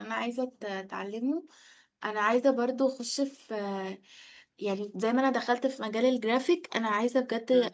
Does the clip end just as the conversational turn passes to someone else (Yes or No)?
No